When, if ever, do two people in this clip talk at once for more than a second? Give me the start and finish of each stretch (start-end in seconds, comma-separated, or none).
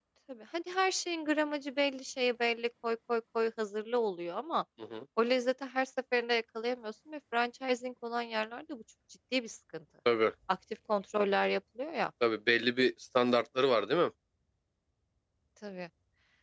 none